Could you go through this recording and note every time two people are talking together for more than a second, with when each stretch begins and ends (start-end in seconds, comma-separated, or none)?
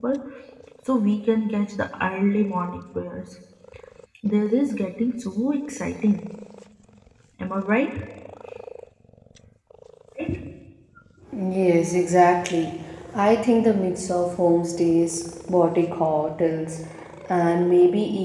none